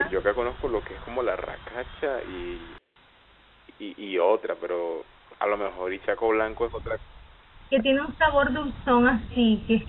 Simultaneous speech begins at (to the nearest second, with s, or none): none